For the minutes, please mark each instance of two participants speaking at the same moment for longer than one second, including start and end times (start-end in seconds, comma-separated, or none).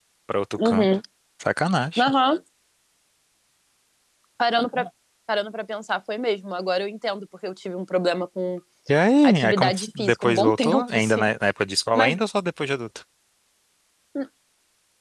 9.2-11.3